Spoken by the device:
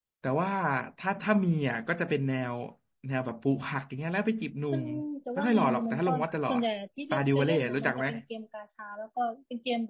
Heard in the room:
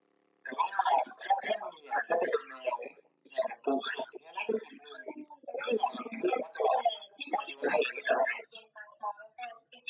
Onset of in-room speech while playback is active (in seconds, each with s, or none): none